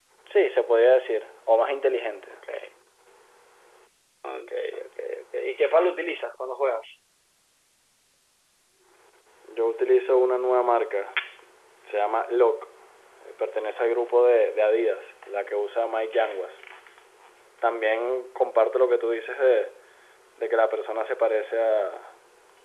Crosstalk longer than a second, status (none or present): none